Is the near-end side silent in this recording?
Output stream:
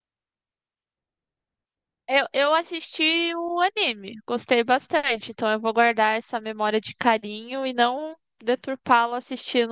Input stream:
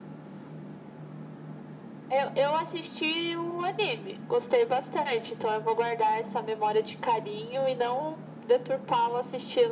Yes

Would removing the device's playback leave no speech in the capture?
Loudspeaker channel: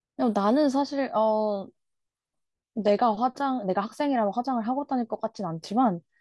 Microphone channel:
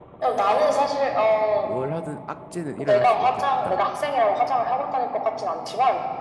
No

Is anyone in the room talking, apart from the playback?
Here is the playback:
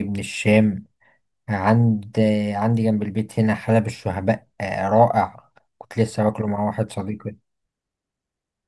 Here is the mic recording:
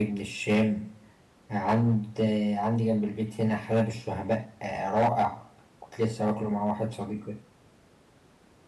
No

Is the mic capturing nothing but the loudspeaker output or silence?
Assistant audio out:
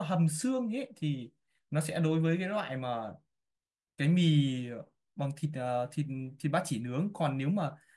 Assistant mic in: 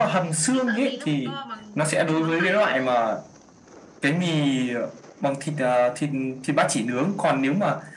No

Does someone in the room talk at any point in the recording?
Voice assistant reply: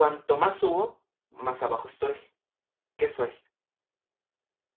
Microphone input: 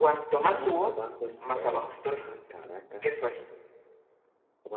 Yes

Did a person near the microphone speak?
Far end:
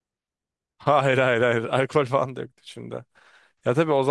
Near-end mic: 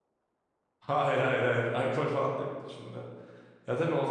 No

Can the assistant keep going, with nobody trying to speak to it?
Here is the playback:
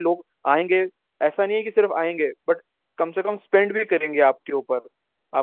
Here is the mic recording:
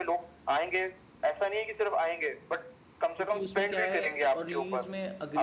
No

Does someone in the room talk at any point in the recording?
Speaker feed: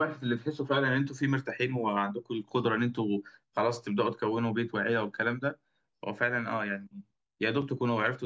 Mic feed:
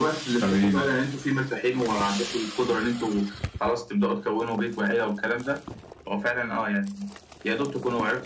Yes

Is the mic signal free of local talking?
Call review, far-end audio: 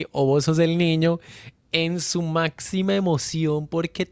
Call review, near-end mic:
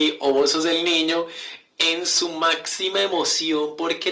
Yes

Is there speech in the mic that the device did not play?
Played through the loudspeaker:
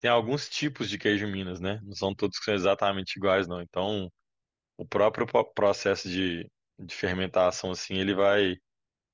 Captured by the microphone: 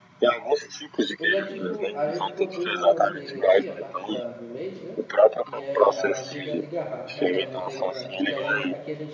Yes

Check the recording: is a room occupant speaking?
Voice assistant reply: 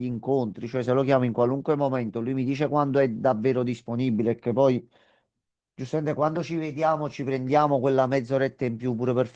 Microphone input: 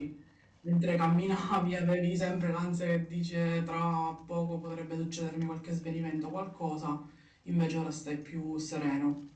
Yes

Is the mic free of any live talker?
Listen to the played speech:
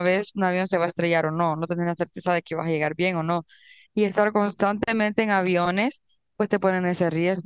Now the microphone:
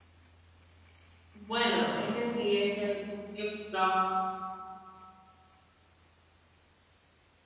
No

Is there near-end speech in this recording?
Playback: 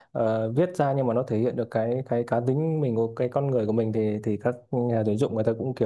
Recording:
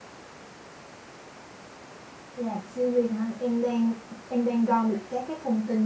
Yes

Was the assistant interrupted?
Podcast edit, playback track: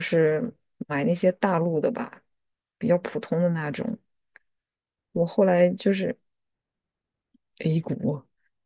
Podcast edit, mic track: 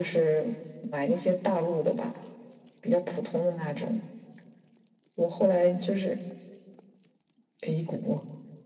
No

